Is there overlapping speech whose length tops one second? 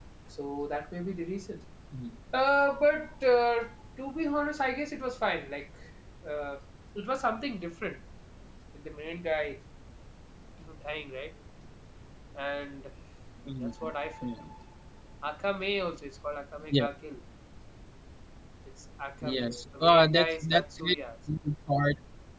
Yes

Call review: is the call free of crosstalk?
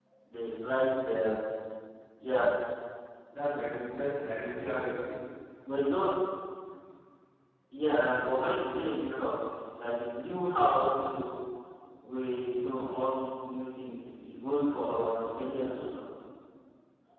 Yes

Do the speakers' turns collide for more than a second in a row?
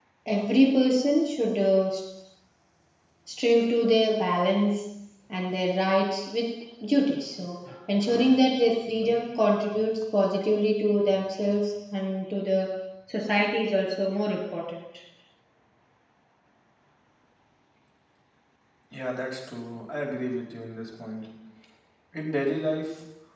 No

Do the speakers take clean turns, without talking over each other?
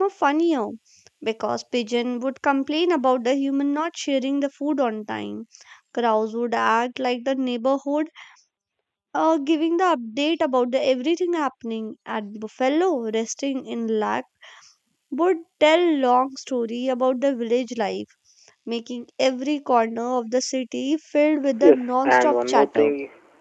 No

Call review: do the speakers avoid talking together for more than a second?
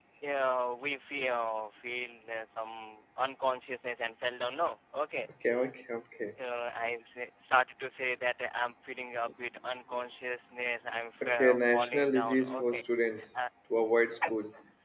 No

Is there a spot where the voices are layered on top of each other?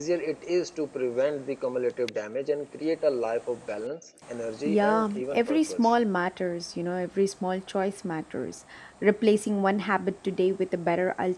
Yes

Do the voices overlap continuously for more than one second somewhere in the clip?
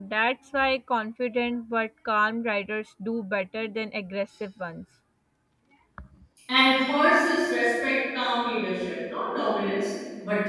No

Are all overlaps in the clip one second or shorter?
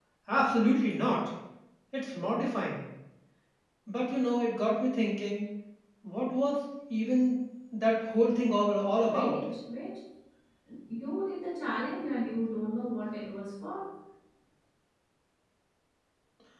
Yes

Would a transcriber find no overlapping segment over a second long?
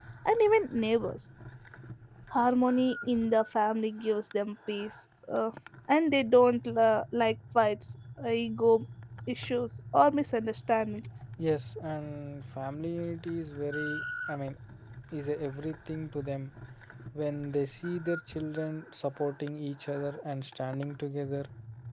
Yes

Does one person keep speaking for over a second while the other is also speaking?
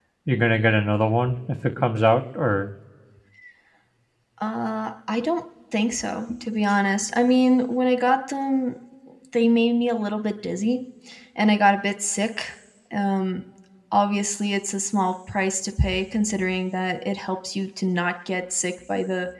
No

